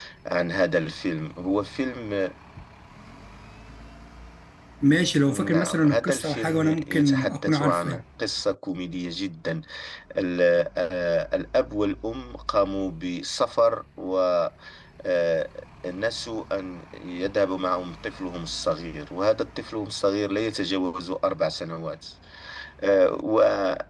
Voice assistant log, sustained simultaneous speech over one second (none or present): present